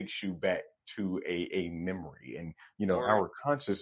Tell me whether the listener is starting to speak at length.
No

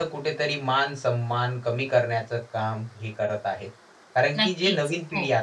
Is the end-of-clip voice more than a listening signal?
No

